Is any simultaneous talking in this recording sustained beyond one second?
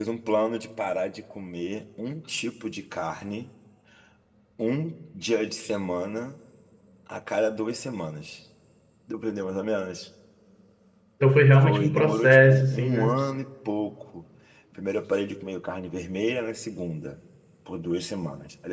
Yes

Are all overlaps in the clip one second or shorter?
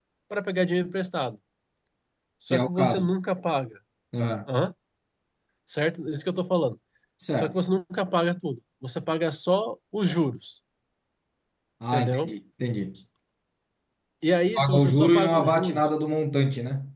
No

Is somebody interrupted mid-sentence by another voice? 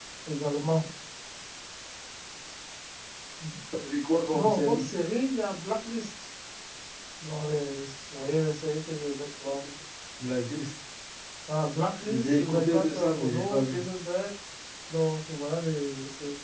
Yes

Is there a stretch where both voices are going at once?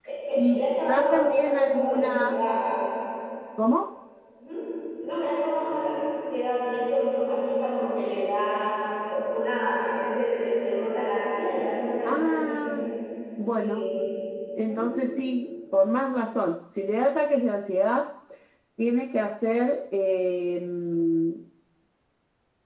Yes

